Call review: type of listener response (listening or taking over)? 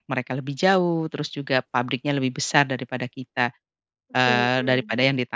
listening